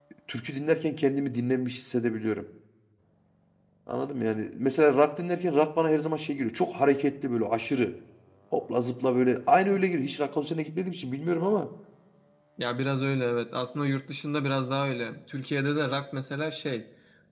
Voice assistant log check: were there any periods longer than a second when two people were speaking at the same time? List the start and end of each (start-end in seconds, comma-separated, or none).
none